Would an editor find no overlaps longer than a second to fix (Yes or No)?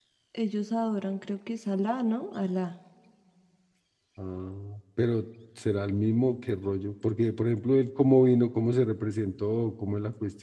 Yes